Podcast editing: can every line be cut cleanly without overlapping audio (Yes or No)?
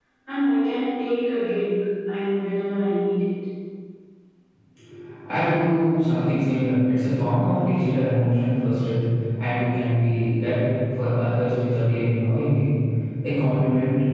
Yes